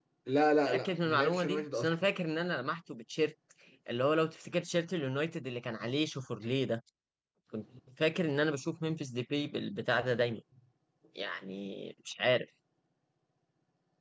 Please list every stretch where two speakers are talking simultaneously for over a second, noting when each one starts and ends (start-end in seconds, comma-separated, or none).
0.7-1.9